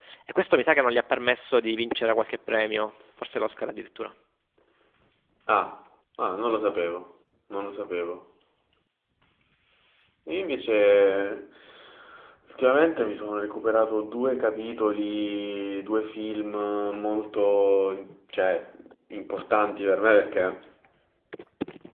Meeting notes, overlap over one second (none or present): none